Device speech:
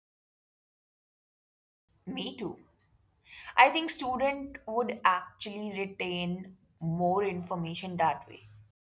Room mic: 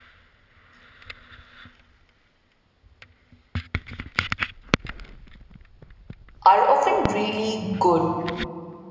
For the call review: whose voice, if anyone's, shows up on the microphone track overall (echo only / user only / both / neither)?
user only